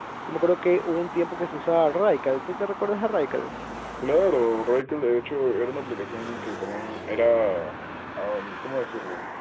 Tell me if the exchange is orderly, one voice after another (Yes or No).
Yes